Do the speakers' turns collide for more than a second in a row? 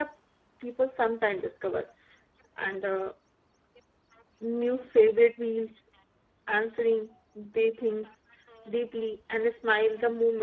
No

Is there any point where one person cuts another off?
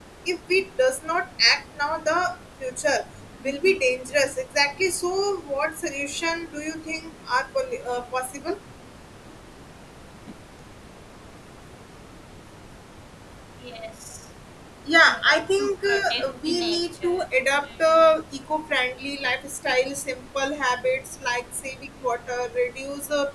Yes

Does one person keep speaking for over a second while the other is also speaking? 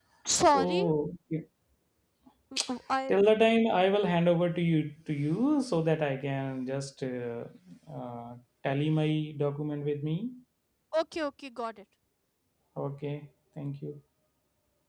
No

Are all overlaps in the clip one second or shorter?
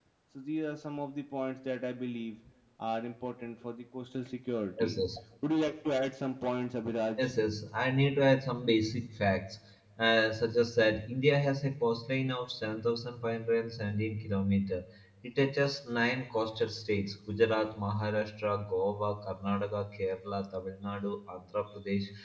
Yes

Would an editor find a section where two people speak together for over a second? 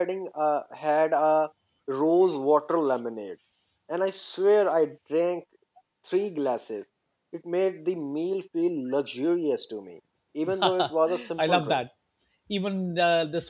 Yes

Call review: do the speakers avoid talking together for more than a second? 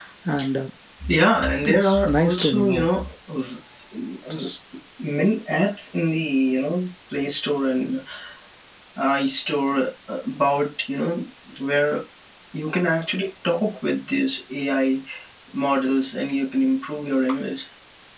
No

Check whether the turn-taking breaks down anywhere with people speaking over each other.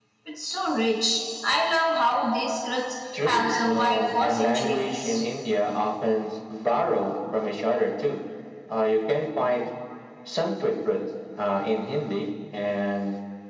Yes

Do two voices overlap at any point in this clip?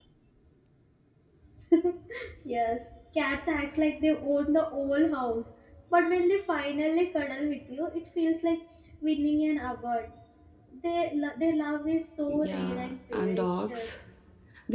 Yes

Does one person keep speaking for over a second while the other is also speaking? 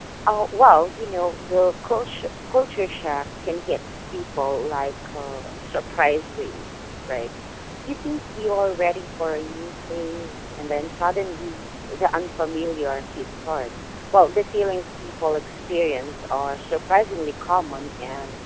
No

